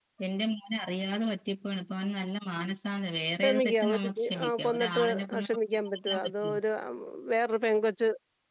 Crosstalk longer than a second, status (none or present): present